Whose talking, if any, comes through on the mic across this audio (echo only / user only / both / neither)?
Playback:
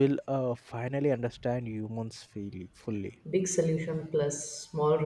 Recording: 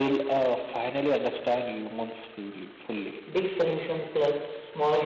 echo only